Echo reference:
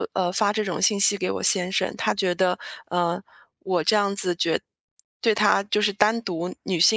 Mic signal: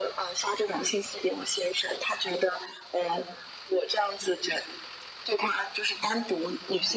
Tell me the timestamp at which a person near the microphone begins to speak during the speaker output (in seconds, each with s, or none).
none